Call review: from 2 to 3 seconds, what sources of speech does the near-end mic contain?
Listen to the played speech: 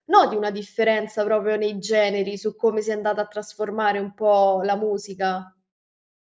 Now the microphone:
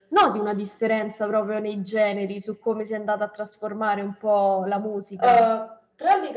echo only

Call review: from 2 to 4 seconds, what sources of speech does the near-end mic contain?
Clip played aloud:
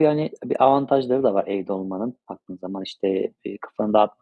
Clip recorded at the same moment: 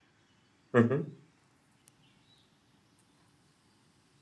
neither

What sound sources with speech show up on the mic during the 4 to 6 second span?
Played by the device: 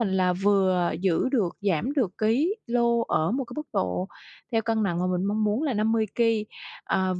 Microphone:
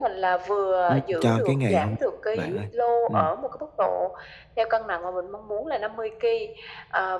echo only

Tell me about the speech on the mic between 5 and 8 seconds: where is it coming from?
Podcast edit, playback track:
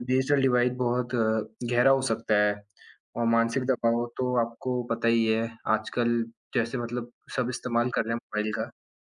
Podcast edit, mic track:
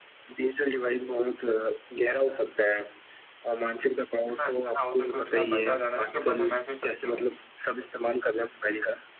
both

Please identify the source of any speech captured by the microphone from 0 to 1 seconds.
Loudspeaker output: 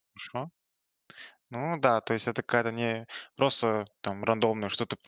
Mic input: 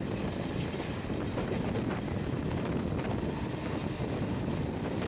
neither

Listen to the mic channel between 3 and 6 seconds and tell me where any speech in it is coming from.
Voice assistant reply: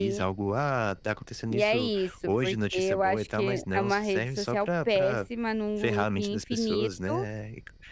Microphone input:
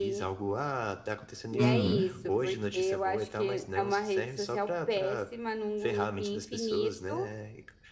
echo only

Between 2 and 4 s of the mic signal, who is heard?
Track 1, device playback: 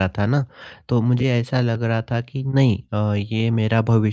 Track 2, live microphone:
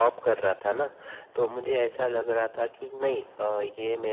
echo only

